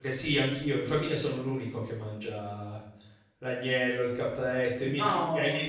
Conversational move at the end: listening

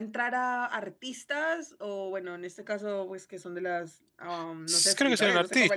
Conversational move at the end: taking over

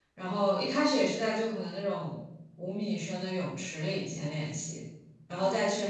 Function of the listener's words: listening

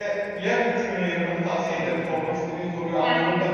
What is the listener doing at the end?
taking over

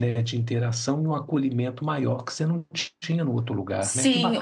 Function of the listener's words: taking over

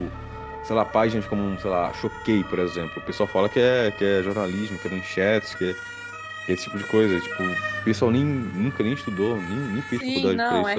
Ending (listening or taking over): taking over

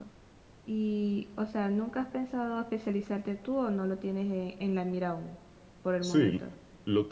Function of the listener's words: taking over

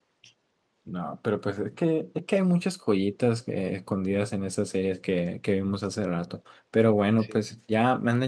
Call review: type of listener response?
listening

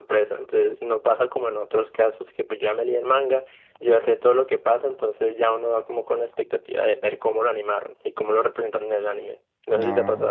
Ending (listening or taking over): taking over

